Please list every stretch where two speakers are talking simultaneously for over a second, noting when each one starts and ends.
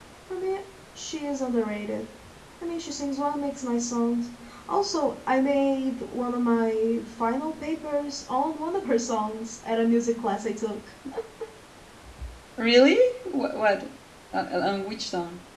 none

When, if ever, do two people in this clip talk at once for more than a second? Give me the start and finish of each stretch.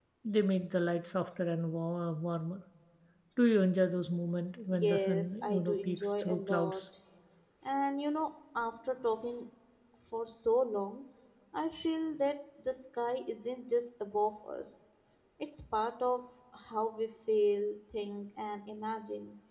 4.8-6.8

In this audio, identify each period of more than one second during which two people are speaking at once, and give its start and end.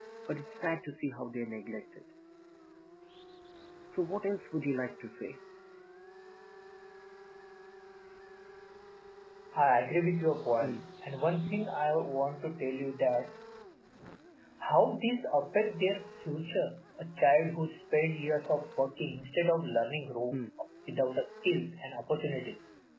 none

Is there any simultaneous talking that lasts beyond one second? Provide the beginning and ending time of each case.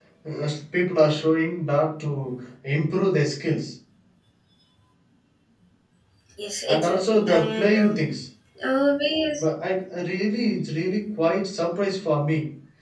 6.7-8.0

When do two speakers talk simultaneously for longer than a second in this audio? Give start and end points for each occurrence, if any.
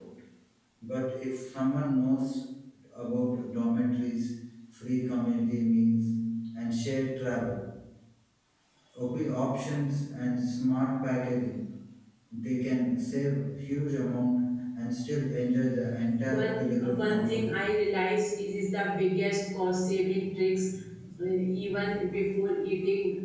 16.2-17.6

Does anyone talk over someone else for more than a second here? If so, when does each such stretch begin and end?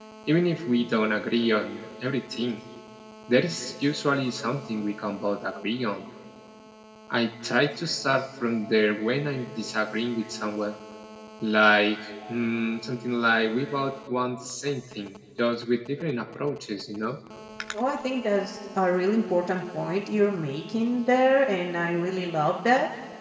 none

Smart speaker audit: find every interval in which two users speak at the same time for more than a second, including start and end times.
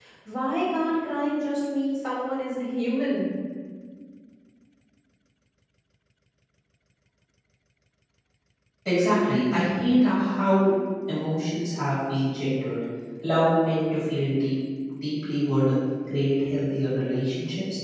none

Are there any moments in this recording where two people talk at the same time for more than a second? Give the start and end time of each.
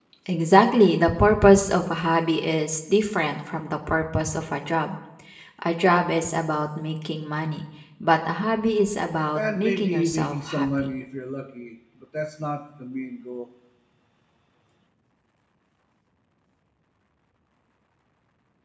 9.3-10.9

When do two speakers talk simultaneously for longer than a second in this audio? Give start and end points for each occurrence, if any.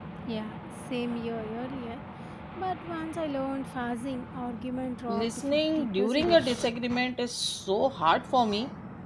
5.1-6.7

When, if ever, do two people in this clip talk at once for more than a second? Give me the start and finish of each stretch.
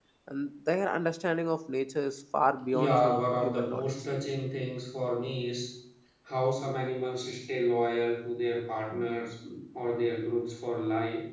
2.7-4.0

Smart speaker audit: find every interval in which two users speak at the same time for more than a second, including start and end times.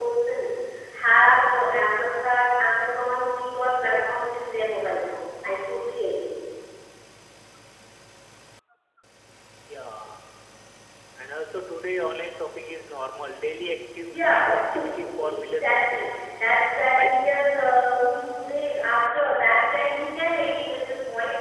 14.1-16.2

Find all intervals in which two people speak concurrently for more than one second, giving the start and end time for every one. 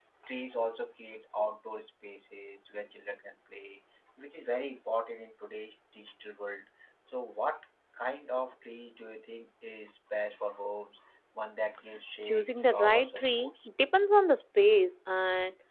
12.2-13.5

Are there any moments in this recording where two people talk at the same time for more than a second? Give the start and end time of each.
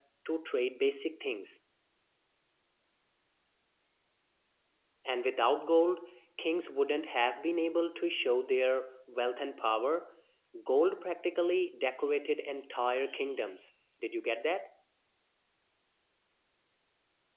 none

